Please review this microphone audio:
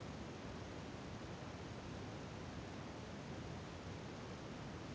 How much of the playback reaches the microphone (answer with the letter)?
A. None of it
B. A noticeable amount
A